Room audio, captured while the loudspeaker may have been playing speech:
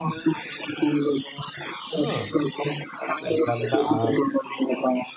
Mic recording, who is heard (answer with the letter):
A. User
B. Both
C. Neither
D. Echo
B